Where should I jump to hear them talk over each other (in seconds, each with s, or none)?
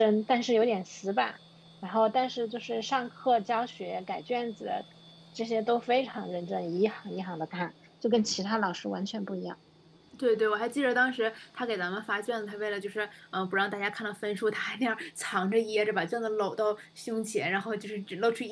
none